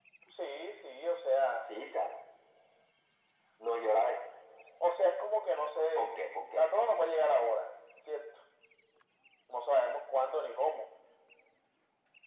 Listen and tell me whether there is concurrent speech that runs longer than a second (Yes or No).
No